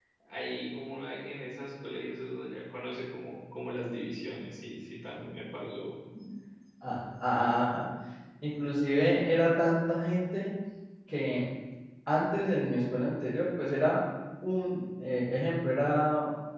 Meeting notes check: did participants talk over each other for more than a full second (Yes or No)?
No